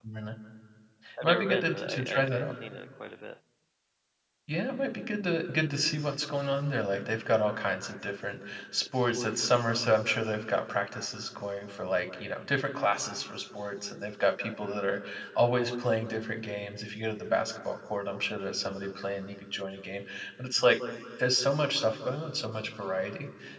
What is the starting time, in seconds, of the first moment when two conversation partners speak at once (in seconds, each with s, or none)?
1.2 s